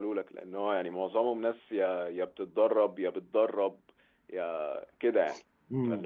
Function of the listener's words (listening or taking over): taking over